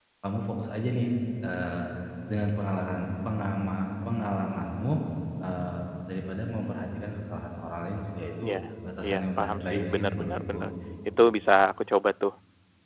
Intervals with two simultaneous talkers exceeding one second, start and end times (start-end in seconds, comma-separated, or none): 9.0-10.7